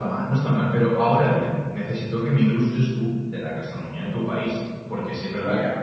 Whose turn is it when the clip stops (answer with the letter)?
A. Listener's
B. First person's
B